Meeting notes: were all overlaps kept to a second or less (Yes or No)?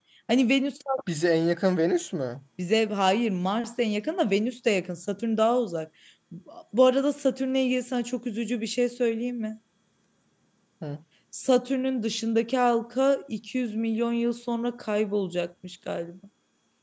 Yes